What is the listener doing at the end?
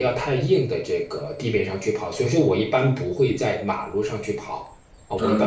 taking over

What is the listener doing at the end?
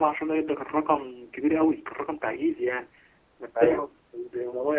listening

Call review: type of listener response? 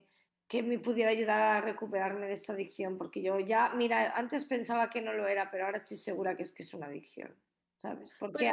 listening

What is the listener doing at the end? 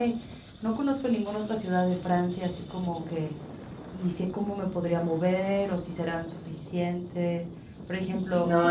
listening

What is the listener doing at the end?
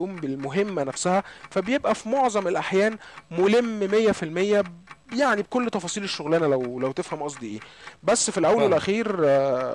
listening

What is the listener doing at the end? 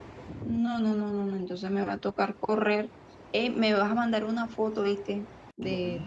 listening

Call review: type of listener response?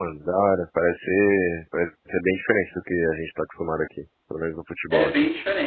taking over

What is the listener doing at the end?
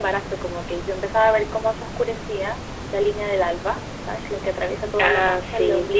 listening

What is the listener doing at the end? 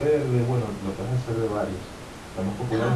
listening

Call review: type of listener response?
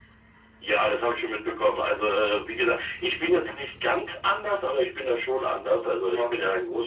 listening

